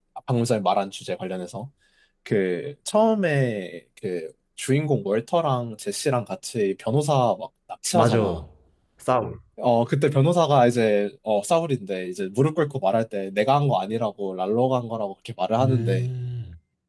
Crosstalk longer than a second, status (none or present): none